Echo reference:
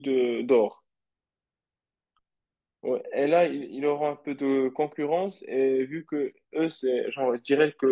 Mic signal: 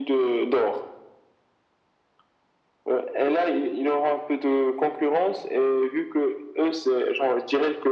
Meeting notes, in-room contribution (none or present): none